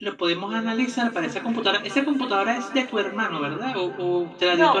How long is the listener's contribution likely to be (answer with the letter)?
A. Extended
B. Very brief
A